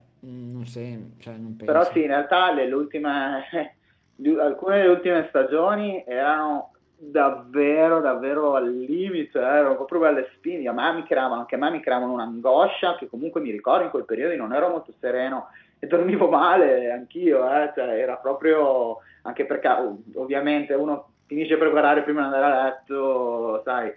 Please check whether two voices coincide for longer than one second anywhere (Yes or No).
No